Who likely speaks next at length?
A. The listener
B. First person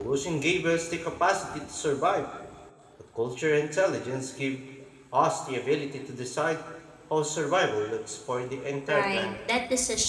A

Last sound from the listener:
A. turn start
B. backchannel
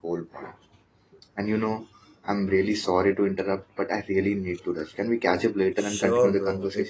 A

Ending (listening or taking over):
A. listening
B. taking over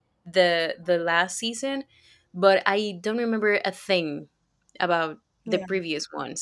A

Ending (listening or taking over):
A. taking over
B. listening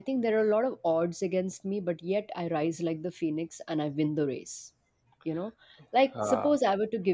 B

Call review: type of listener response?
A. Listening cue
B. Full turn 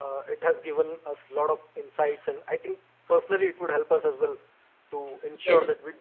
A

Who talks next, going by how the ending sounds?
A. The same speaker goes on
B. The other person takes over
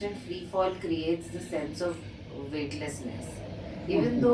A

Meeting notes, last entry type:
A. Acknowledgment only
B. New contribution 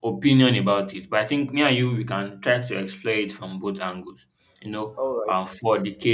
A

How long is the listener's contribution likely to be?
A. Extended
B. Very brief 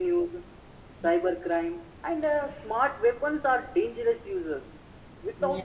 B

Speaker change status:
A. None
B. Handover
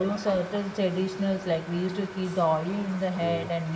A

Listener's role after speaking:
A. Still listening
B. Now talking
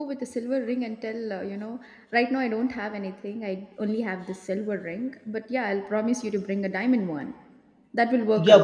B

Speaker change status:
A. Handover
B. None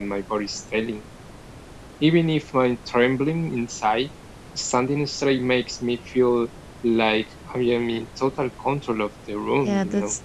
A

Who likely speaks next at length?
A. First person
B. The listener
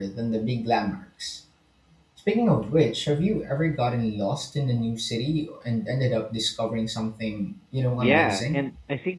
B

